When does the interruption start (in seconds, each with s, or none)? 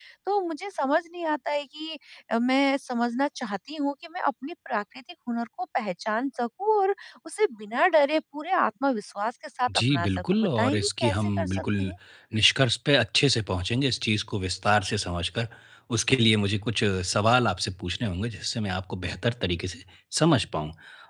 9.7 s